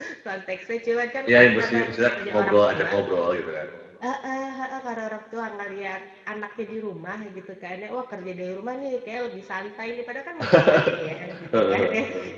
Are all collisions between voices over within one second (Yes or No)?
No